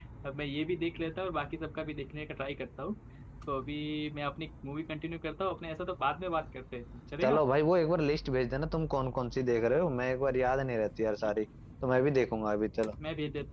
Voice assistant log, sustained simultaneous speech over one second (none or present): none